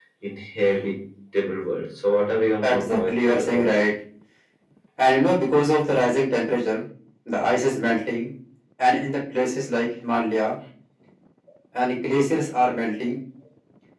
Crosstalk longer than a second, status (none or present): present